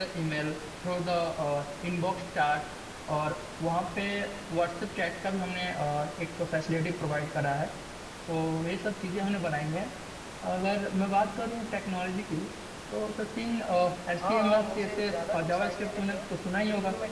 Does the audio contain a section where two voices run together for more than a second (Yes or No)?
Yes